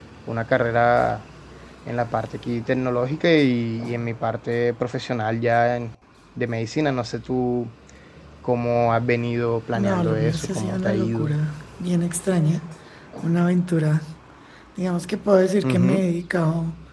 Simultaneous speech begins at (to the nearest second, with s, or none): 10 s